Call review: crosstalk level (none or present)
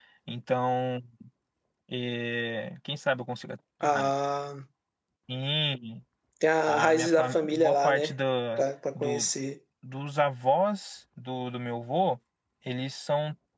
present